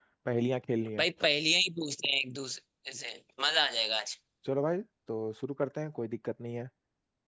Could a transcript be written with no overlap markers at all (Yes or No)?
Yes